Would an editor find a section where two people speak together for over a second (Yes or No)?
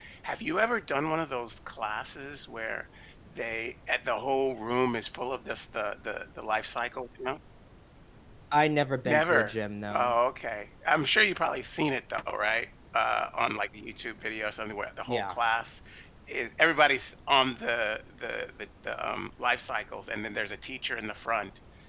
No